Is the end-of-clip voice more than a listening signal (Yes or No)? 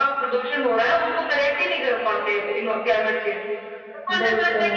No